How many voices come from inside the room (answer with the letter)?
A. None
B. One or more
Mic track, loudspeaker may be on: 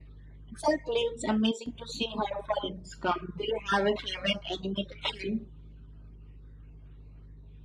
A